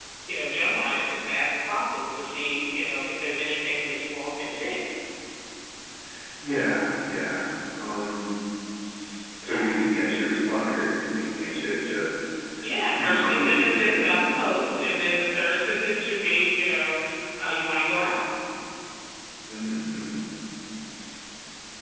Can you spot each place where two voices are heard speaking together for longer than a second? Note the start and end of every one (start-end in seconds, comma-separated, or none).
13.0-14.2